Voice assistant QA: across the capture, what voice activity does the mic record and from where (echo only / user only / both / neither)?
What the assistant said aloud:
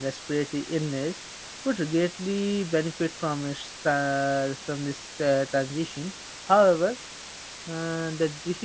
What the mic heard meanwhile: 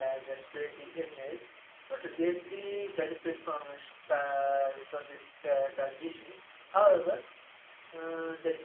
echo only